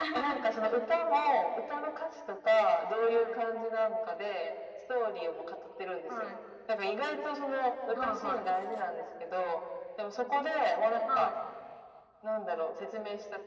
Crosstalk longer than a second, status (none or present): none